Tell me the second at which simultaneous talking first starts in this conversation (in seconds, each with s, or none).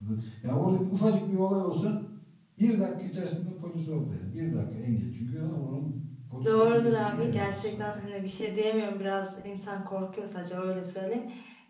6.4 s